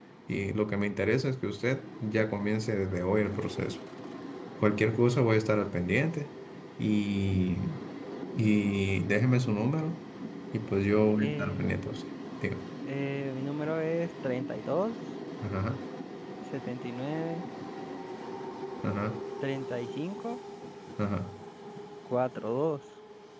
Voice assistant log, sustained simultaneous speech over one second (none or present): none